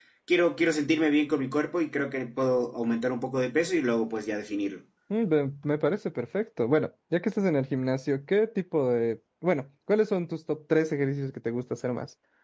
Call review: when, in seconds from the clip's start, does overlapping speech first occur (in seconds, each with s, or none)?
none